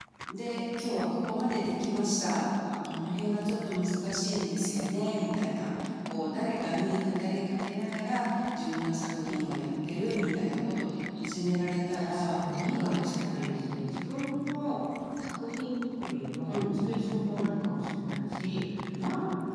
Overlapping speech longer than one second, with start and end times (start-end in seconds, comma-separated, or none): 11.9-13.6